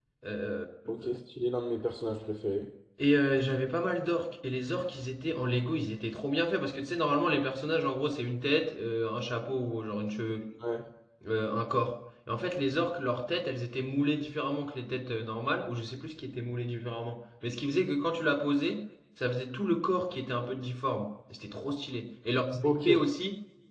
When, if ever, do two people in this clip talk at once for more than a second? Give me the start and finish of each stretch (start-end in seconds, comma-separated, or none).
none